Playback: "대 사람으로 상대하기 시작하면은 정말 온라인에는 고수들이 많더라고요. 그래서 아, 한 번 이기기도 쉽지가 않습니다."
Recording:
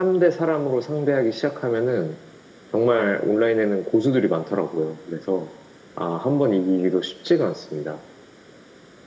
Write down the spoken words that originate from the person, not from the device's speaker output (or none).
none